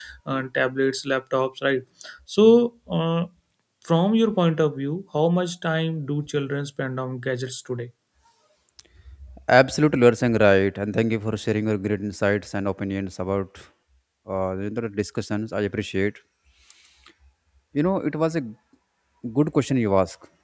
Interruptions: none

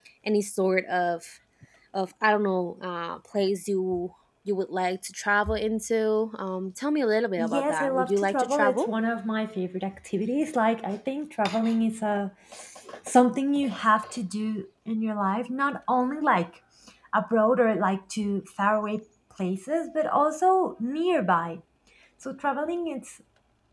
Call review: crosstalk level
present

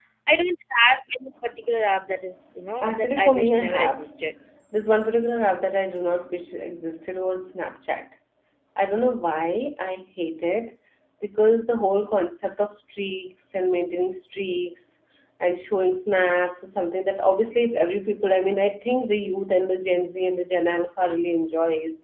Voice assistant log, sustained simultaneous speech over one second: present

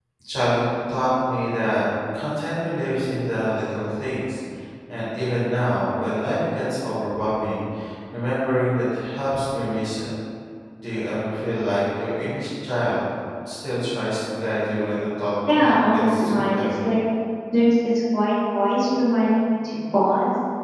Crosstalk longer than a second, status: present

